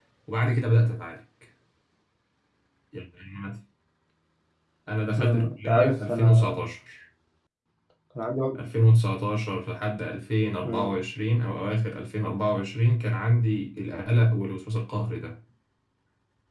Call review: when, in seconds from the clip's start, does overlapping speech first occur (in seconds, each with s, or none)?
5.2 s